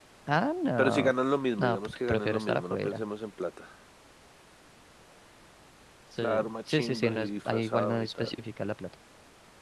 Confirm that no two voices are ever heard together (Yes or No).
No